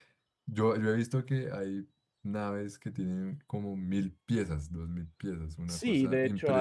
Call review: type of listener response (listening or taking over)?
taking over